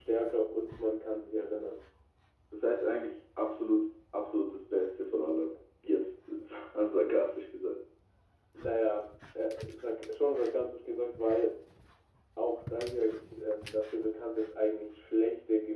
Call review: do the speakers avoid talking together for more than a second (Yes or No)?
Yes